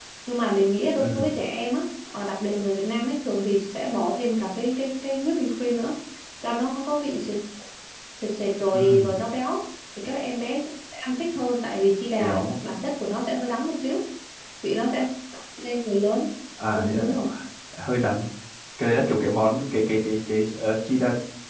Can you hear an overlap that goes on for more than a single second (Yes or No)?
No